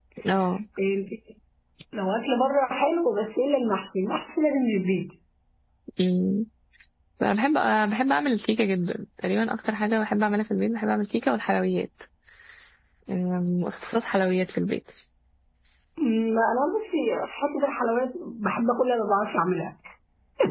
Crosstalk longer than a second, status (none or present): none